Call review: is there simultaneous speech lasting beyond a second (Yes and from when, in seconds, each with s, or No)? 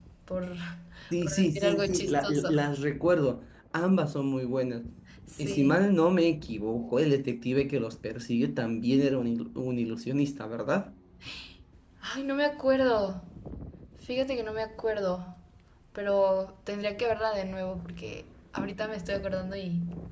Yes, from 1.2 s